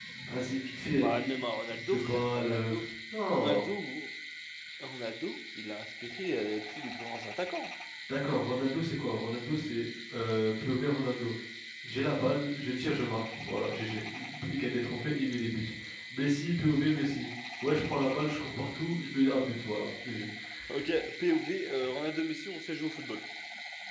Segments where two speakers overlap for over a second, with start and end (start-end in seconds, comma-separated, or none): 1.0-2.7